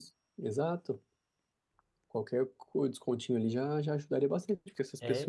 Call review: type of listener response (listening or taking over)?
listening